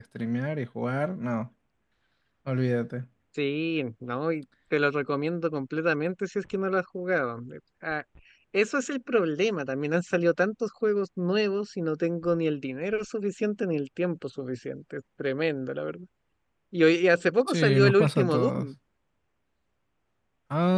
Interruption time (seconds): 17.5 s

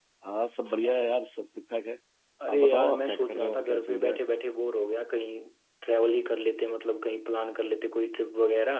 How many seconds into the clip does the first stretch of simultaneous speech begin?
2.5 s

